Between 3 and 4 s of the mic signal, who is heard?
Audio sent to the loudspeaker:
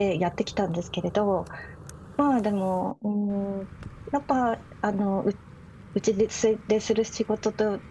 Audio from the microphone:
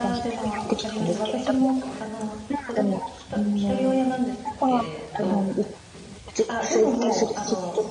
both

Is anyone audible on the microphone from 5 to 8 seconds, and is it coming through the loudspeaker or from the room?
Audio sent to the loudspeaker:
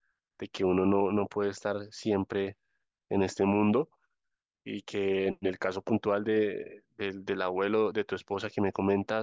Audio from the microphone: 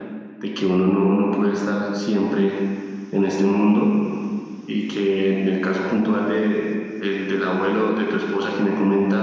echo only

